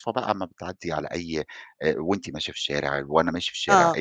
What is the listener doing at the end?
taking over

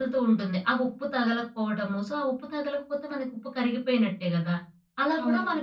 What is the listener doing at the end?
listening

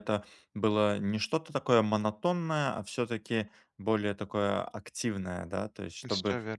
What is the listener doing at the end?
listening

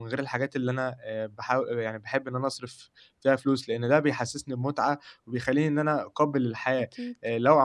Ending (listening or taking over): listening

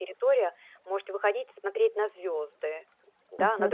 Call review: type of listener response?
taking over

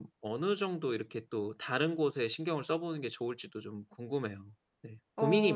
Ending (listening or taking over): taking over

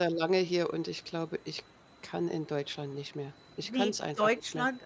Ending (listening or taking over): taking over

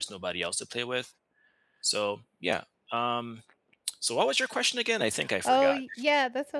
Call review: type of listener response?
taking over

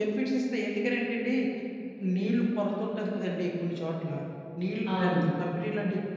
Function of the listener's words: listening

